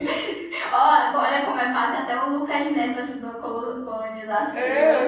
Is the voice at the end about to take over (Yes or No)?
Yes